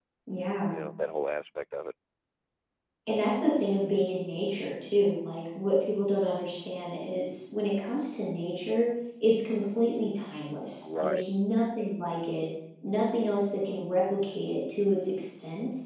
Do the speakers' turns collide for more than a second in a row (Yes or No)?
No